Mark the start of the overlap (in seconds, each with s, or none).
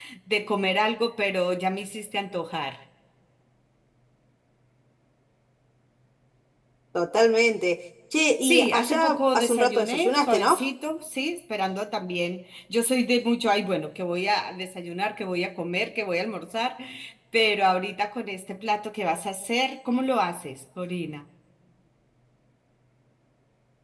8.4 s